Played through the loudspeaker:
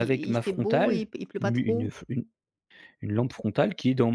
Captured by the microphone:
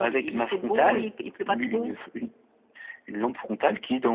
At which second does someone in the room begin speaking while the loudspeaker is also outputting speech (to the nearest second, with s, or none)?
none